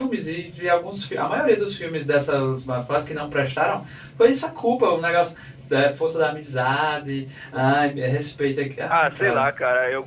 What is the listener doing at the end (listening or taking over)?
taking over